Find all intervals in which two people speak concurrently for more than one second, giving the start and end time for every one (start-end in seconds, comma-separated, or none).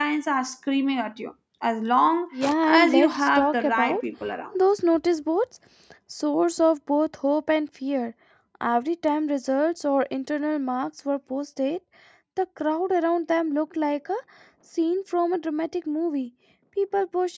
2.6-4.0